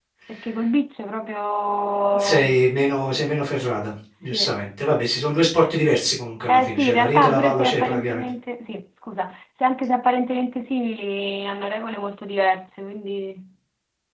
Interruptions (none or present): present